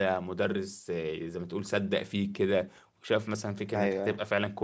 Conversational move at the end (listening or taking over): listening